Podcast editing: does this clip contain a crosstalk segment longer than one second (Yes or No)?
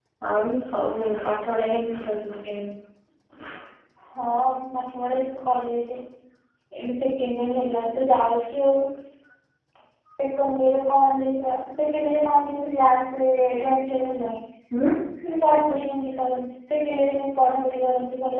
No